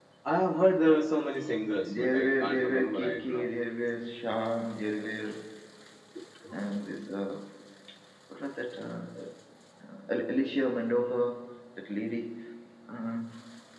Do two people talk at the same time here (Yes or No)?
Yes